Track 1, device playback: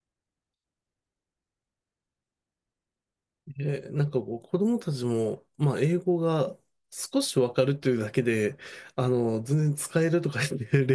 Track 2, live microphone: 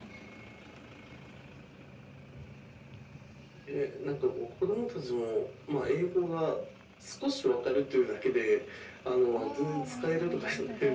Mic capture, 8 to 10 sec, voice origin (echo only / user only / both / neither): both